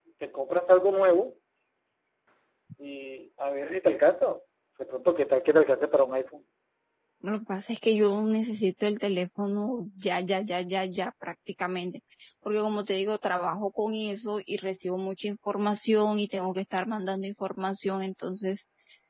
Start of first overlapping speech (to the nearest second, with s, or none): none